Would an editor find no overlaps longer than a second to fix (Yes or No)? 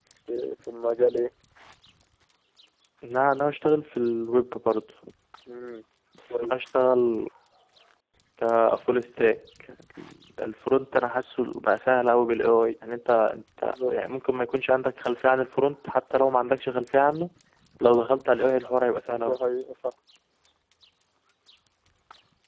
Yes